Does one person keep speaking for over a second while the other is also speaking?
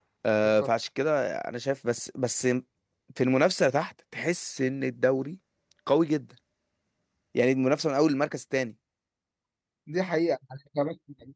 No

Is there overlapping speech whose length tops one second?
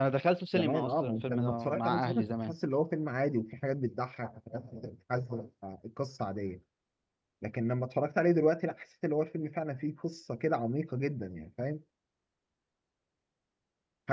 Yes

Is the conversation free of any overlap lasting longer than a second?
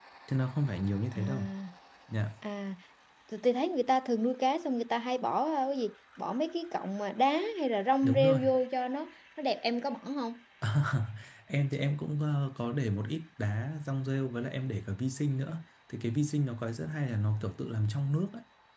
Yes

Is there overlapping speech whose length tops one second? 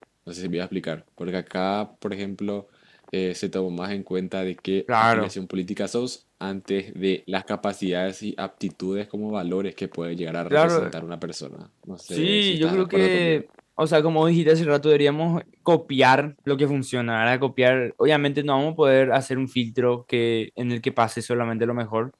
Yes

